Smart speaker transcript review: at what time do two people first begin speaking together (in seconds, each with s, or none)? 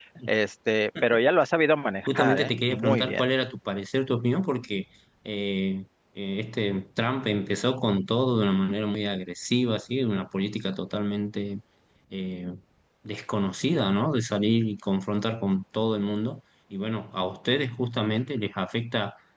2.1 s